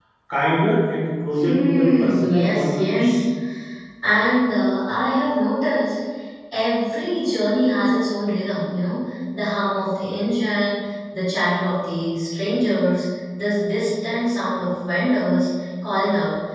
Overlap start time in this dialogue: 1.4 s

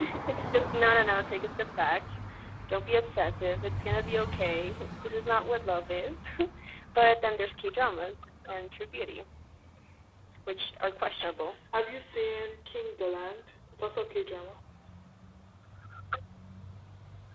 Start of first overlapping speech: none

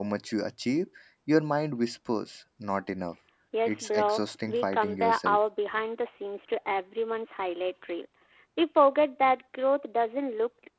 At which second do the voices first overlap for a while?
3.7 s

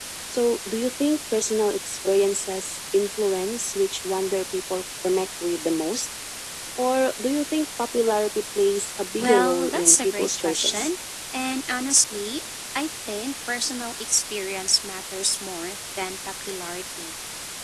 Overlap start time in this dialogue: 9.2 s

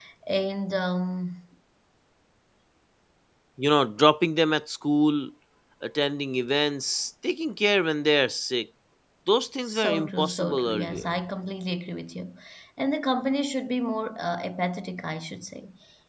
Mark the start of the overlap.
9.6 s

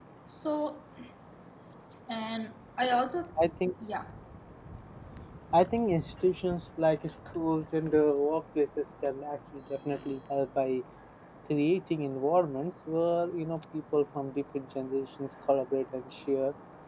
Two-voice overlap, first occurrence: none

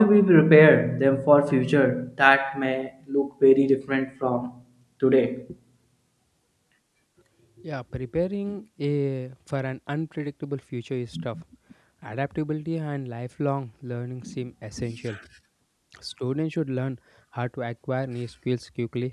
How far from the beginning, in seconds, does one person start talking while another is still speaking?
none

